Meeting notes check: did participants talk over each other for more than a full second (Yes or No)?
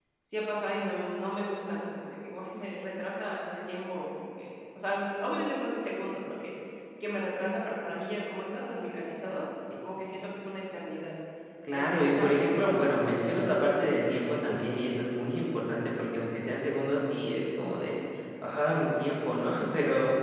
Yes